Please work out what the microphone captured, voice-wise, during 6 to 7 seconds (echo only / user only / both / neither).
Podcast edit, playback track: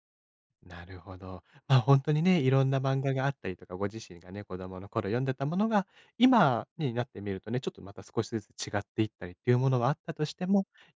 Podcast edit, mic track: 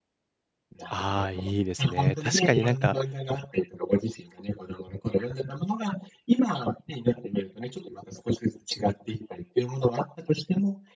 echo only